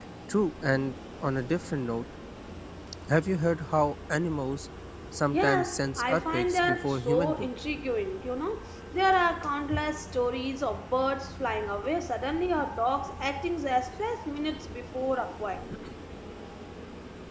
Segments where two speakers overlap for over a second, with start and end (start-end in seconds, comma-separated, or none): 5.3-7.5